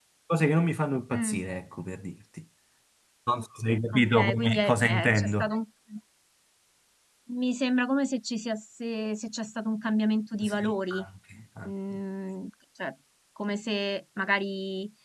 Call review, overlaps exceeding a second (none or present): present